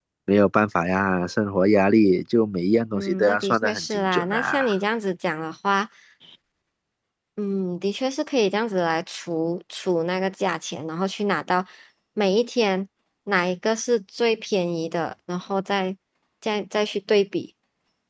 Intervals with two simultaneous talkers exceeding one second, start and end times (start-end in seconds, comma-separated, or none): 2.9-4.8